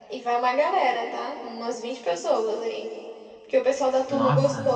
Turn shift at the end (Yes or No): No